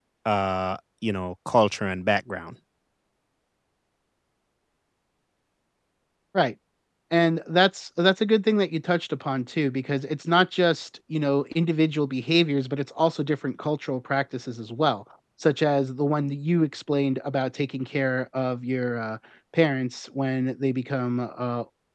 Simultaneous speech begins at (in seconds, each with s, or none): none